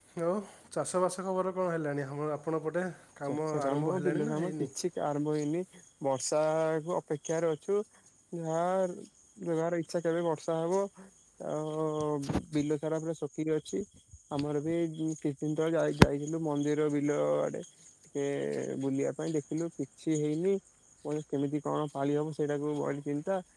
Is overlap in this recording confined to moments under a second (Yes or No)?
No